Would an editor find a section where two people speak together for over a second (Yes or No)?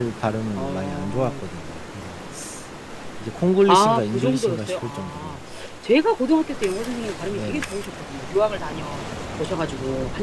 Yes